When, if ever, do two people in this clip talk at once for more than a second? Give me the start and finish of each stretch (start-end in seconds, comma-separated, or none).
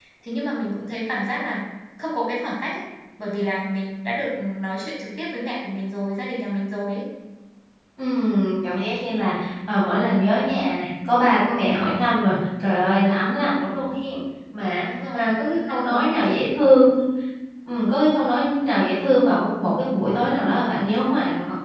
15.1-16.8